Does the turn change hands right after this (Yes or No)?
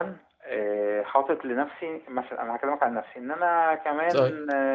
No